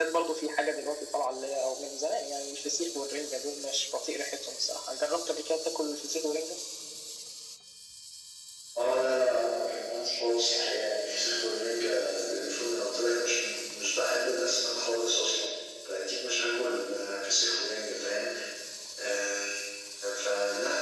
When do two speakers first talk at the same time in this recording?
none

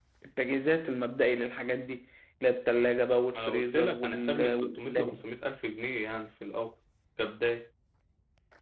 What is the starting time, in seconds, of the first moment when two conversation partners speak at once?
3.3 s

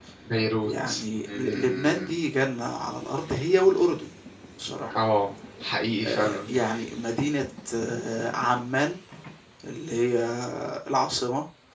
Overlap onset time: 0.6 s

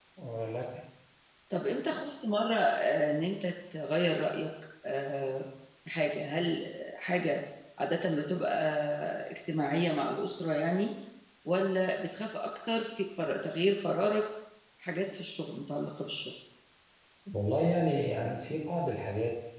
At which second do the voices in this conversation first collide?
none

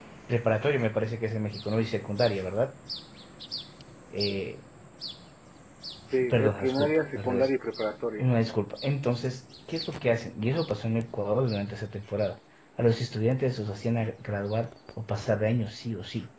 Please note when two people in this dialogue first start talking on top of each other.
6.3 s

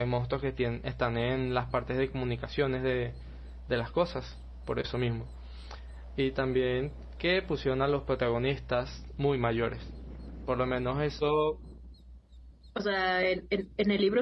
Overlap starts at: none

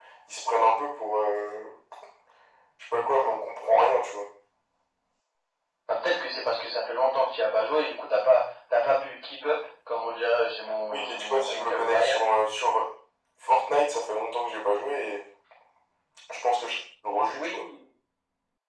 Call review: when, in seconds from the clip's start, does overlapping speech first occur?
10.9 s

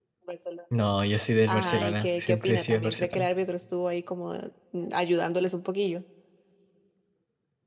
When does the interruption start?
1.5 s

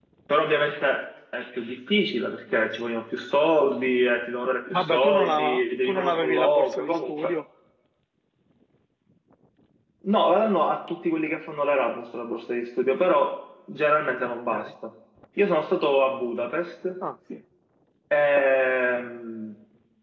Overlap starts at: 4.7 s

